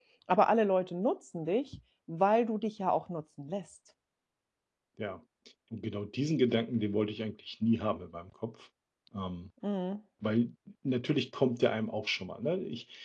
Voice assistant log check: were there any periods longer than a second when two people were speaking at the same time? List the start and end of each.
none

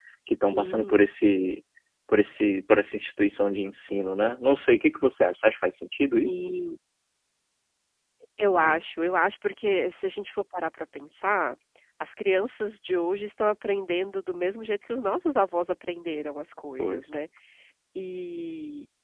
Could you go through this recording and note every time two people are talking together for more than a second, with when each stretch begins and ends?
none

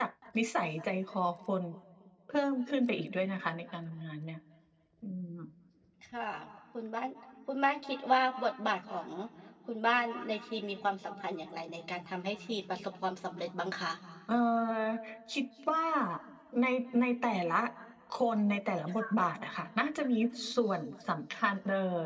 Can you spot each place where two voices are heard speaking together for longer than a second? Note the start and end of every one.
none

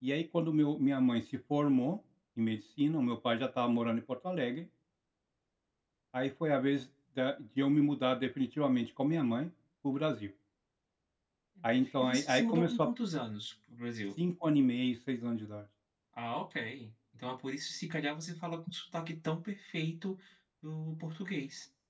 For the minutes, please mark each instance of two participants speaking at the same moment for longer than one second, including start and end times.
11.6-12.9

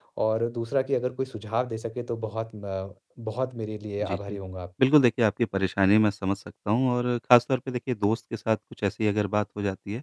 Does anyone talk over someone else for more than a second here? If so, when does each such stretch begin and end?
none

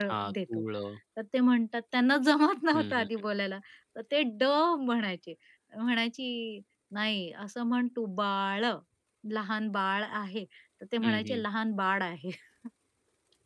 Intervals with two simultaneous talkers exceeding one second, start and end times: none

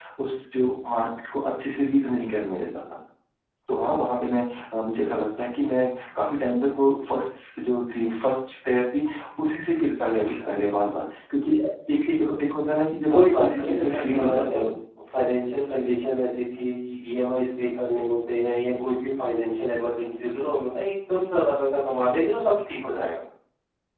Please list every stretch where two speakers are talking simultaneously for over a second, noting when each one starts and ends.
13.1-14.6

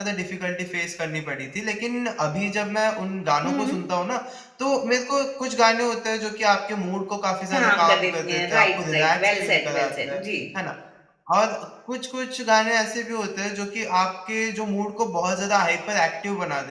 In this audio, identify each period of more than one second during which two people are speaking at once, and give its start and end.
7.5-10.2

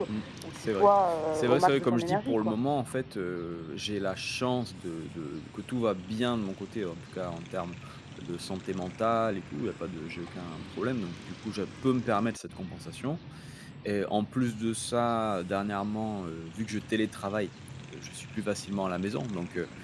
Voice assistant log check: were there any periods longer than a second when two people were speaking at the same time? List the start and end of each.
1.3-2.5

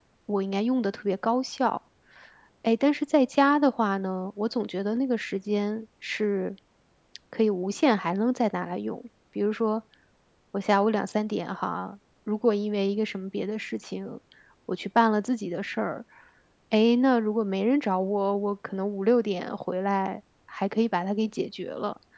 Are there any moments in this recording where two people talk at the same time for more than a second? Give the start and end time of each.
none

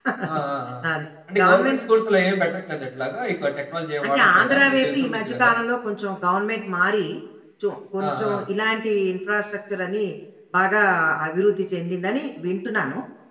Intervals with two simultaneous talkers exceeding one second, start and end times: 4.0-5.5

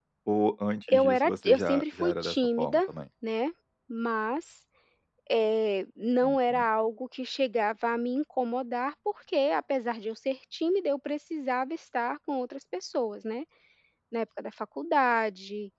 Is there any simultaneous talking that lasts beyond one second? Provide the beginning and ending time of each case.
0.9-2.8

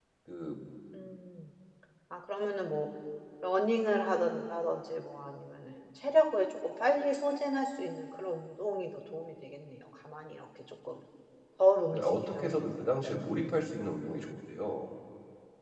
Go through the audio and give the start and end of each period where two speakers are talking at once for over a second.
11.9-13.3

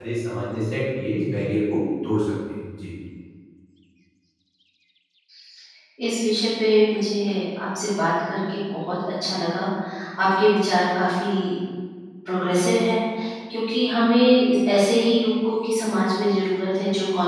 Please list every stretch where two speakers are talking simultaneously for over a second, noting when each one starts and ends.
none

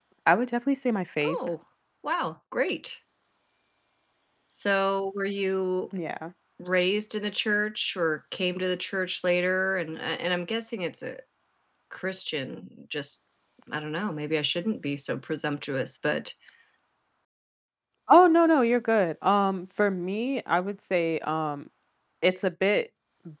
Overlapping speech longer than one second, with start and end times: none

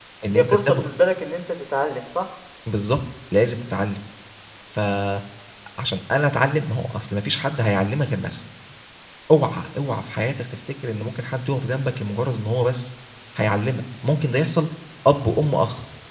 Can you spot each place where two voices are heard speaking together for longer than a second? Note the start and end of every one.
none

